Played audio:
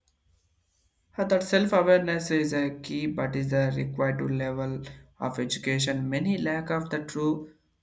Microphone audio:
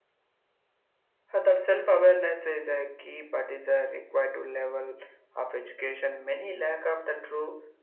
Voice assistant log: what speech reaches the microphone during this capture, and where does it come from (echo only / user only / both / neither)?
echo only